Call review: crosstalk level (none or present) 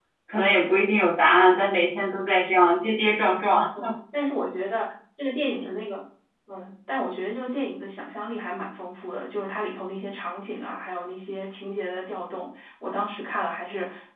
none